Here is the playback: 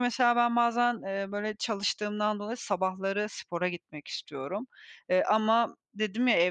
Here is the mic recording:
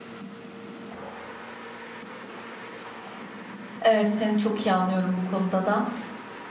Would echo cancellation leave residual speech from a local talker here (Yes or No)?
Yes